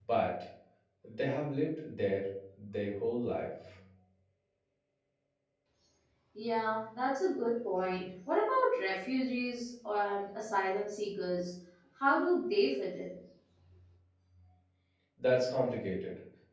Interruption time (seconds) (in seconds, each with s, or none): none